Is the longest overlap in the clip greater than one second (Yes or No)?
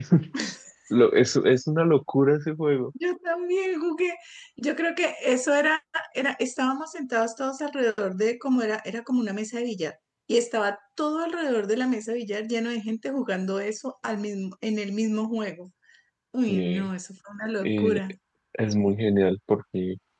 No